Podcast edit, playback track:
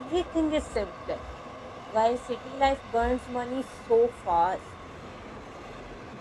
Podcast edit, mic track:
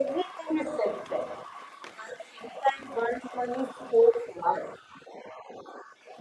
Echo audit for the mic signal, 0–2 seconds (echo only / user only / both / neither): echo only